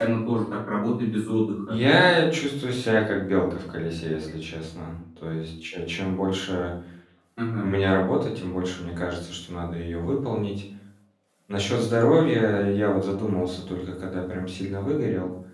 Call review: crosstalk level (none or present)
none